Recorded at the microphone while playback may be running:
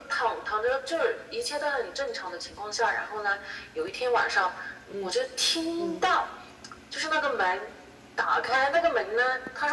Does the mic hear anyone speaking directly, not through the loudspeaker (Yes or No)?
Yes